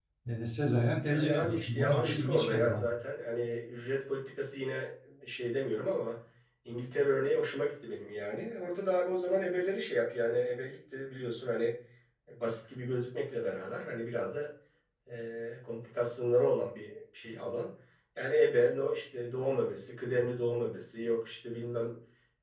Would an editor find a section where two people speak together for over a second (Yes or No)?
Yes